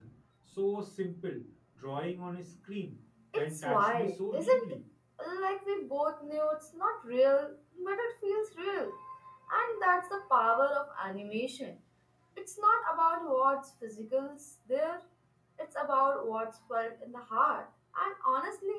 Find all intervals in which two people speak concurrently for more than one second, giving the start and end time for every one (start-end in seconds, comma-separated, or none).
3.4-4.8